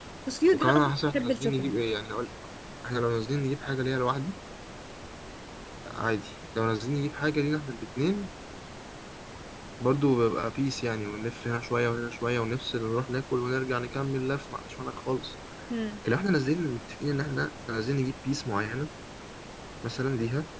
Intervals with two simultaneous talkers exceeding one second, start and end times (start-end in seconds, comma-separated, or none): 0.5-1.7